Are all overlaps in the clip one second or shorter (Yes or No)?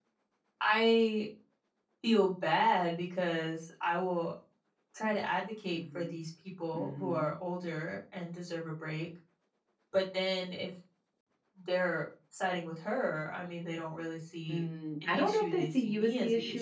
No